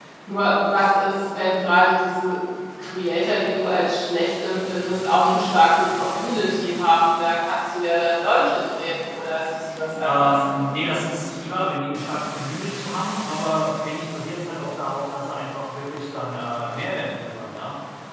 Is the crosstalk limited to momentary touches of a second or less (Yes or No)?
Yes